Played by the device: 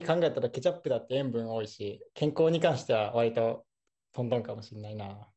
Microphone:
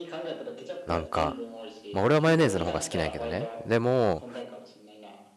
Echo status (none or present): present